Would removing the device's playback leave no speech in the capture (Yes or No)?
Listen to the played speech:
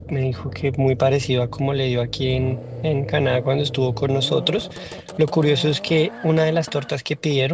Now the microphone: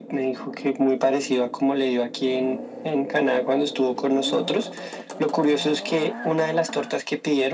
Yes